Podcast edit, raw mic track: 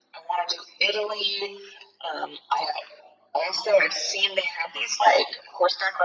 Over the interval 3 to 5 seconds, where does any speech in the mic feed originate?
echo only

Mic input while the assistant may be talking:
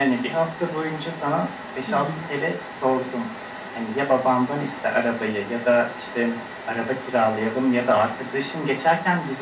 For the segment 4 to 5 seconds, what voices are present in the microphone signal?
echo only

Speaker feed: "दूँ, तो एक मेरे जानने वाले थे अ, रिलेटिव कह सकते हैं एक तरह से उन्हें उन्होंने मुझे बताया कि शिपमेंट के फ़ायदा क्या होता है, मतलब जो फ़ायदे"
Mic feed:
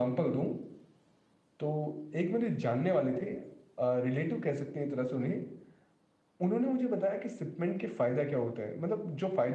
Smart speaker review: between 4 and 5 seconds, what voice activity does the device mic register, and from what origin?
echo only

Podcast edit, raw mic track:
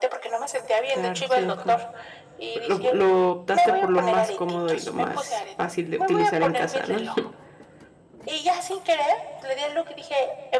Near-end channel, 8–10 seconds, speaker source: echo only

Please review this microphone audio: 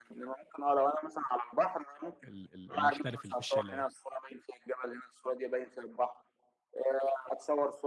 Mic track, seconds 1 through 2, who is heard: echo only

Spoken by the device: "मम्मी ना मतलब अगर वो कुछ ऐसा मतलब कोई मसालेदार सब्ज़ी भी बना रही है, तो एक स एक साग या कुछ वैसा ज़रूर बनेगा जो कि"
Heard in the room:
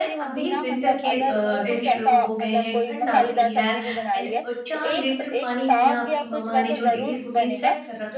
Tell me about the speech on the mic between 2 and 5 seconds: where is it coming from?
both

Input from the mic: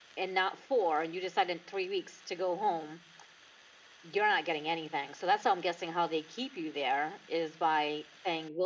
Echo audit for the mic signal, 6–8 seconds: echo only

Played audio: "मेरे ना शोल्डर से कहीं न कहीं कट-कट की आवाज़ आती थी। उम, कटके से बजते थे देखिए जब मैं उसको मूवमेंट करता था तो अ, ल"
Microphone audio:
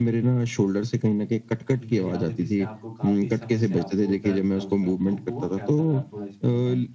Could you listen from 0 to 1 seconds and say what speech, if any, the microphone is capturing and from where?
echo only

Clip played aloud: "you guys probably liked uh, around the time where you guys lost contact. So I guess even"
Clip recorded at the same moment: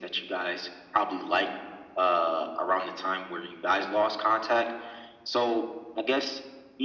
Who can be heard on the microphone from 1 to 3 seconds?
echo only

